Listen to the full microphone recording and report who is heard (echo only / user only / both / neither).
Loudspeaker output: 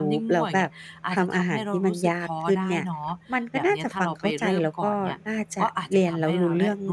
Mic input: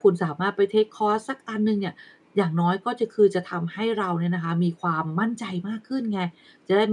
user only